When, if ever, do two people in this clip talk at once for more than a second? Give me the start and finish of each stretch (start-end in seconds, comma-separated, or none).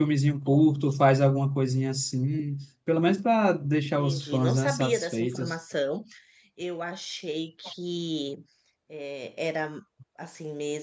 4.0-5.5